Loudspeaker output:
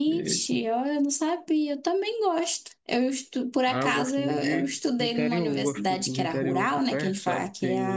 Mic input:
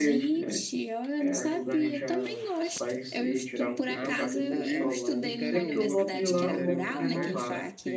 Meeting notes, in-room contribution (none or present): present